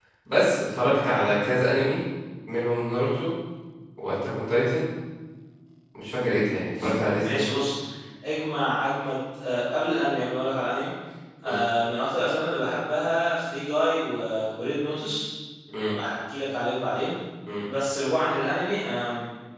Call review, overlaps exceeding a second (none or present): none